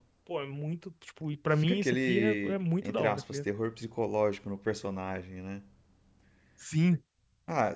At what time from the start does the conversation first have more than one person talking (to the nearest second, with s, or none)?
2 s